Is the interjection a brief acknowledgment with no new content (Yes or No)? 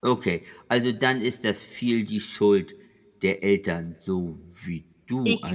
No